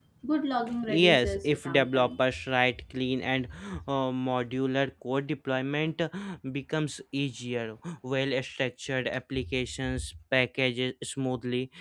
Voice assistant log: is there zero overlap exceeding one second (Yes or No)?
No